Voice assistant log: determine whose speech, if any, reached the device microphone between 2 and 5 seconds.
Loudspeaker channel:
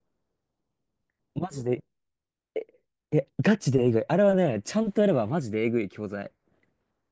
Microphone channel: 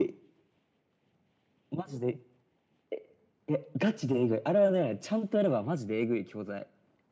echo only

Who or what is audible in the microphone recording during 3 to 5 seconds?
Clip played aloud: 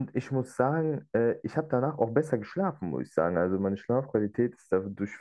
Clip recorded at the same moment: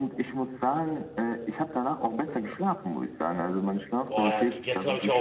both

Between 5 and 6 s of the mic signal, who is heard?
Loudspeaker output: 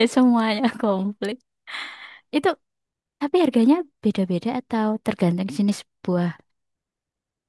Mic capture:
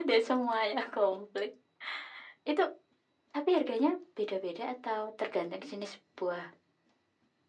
echo only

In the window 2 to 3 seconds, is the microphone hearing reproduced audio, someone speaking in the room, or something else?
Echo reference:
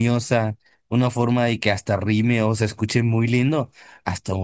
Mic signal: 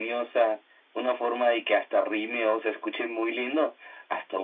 echo only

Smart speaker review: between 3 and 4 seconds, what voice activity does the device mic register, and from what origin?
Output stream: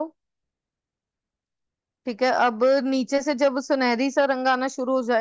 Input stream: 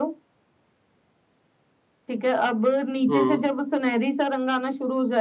both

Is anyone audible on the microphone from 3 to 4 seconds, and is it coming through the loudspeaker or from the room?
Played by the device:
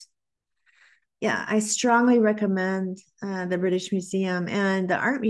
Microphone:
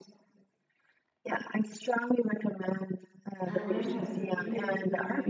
both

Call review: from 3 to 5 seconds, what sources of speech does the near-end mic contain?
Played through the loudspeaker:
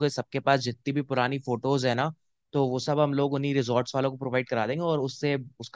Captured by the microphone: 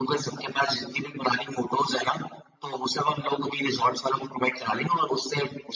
echo only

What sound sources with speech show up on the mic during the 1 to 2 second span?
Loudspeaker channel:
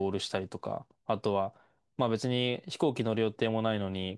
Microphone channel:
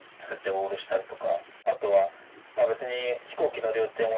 echo only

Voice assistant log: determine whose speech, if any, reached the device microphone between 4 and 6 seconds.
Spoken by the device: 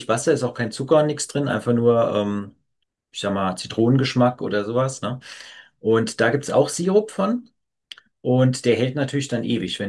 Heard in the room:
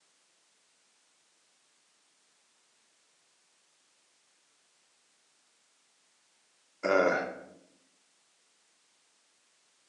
neither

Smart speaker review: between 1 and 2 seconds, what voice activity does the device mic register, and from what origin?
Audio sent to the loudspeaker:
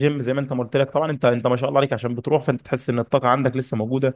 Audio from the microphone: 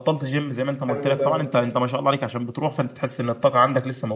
both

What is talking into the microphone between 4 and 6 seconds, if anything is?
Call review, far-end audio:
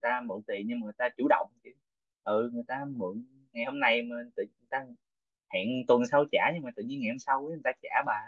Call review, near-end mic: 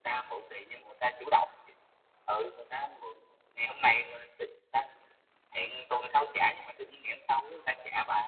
echo only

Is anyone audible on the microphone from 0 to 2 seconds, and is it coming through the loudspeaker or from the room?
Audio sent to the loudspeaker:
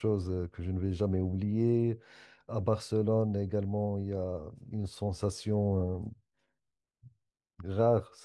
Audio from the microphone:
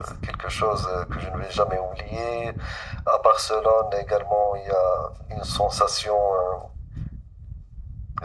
echo only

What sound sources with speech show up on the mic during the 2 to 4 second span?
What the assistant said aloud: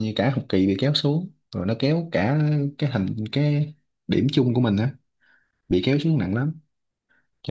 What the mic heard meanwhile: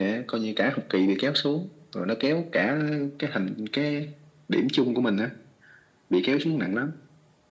echo only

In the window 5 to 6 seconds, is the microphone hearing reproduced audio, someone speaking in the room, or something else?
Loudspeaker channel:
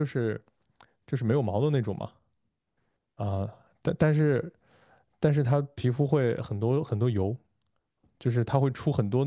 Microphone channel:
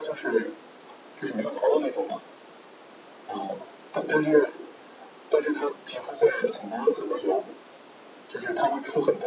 echo only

